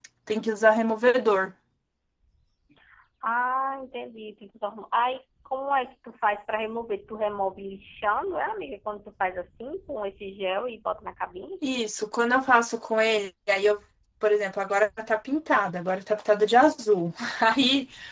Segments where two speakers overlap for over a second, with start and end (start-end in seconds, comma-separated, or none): none